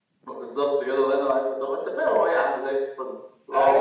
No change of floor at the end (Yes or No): No